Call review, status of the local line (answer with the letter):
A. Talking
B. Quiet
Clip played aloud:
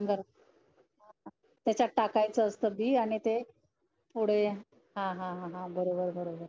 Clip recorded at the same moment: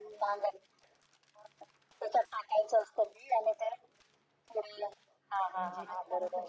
A